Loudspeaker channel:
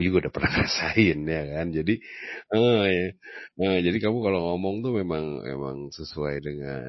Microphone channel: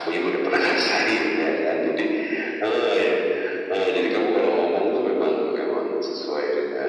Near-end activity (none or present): none